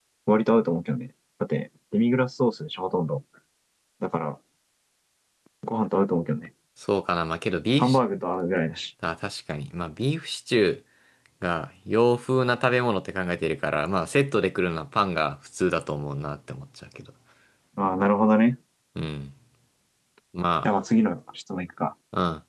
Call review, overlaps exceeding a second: none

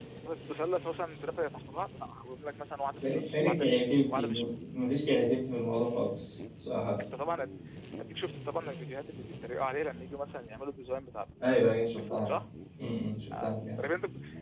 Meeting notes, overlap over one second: present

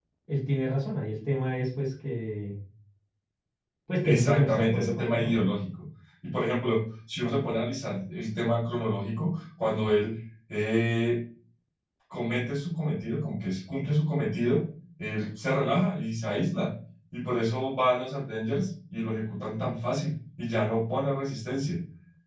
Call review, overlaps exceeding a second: present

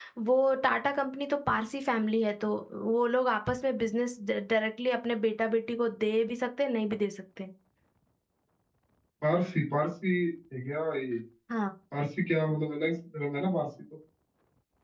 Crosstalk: none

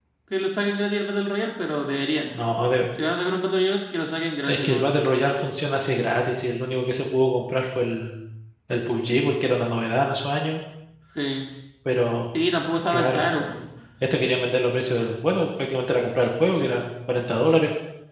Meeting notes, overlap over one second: none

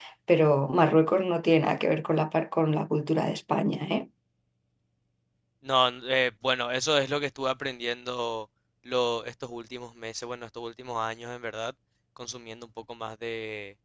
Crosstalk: none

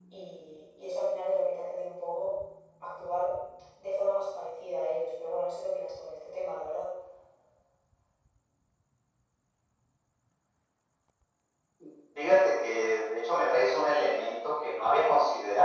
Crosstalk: none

